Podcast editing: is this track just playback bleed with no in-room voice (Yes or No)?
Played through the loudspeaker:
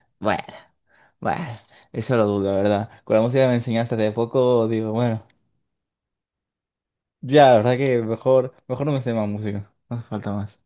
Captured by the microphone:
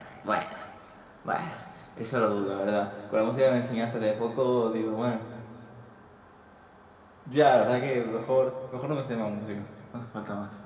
Yes